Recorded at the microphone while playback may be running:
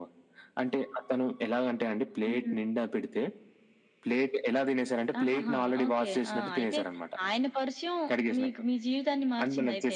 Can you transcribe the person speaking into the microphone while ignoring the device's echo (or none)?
none